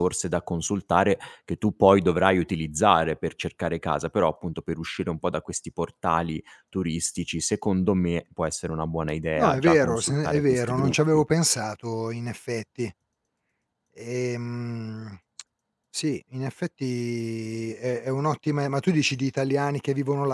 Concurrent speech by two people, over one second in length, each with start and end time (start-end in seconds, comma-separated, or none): 9.4-11.2